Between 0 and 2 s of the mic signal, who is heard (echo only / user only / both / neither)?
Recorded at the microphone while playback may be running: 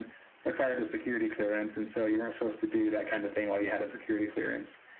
echo only